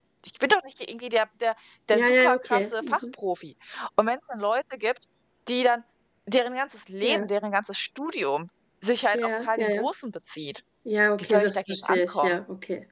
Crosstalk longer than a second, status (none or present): present